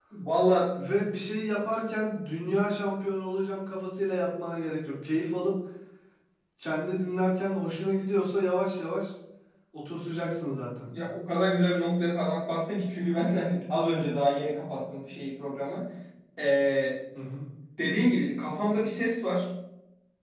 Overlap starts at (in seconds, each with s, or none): none